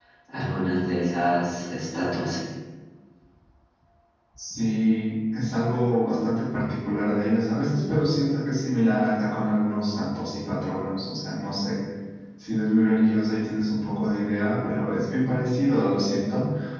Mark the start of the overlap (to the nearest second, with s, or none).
none